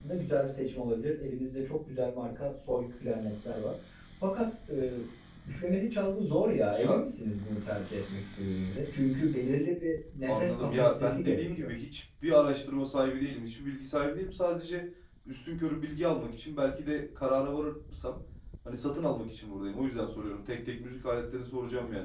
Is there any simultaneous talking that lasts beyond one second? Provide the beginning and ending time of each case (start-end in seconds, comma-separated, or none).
10.3-11.7